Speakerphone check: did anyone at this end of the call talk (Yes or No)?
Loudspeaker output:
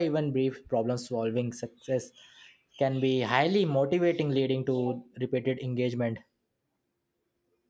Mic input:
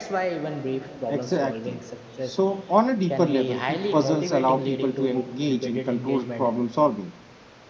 Yes